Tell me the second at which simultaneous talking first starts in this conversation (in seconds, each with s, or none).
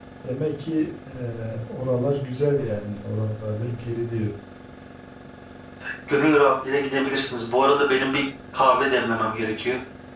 none